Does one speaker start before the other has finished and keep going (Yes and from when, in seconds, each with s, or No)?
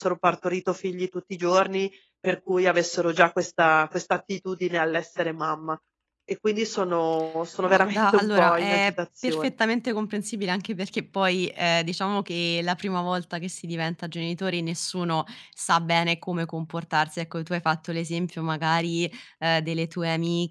Yes, from 7.6 s